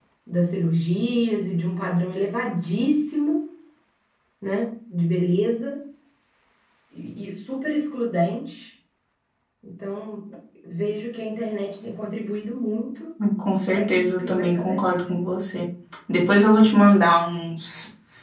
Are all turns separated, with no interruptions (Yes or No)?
No